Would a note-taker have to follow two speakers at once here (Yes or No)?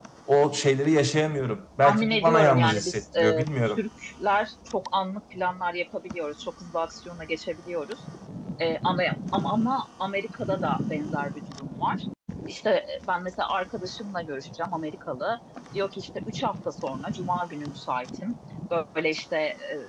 Yes